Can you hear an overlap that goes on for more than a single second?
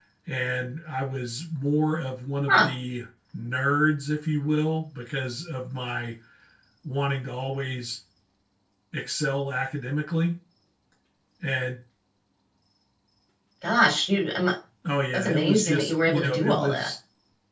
Yes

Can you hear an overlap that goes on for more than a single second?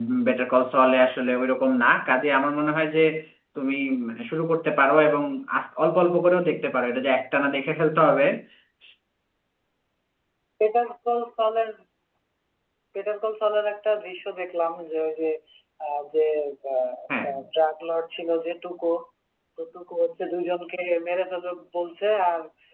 No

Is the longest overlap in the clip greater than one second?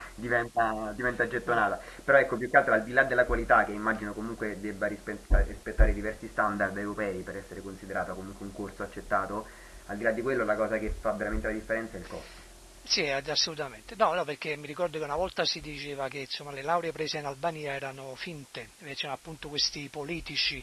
No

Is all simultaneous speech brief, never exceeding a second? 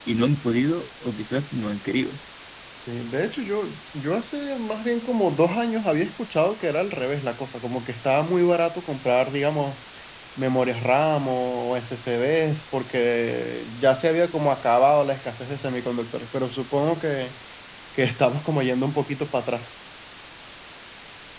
Yes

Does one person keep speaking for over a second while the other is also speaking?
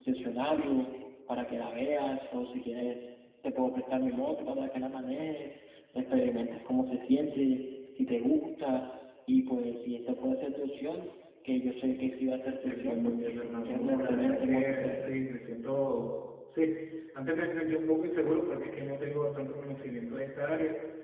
Yes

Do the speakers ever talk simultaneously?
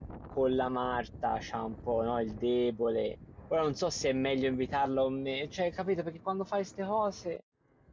No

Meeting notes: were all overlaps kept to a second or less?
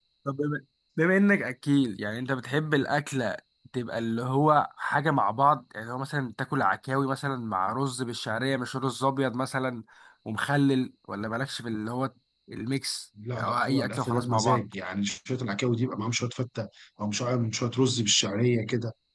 No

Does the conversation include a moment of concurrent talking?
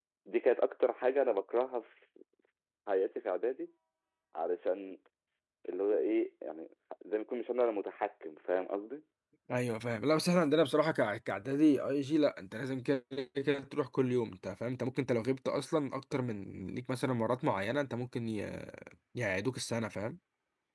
No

